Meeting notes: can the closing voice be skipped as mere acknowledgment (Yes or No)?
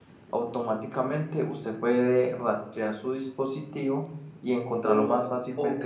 No